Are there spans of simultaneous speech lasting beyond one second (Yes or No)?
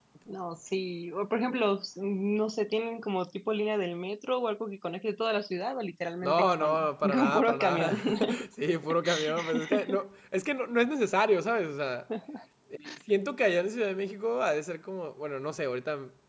Yes